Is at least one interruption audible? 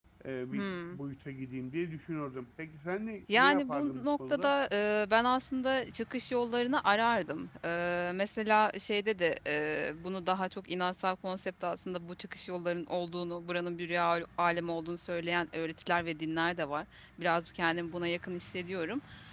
Yes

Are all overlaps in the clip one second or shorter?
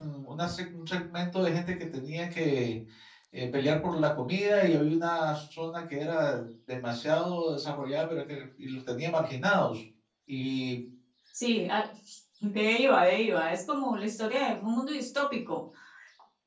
Yes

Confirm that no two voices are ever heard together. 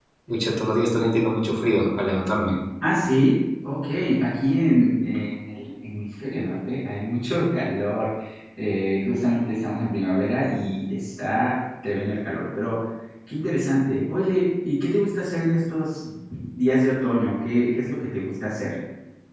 Yes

